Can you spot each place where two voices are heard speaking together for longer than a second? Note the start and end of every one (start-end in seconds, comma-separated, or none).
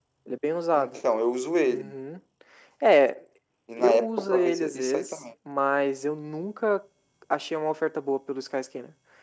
3.8-5.2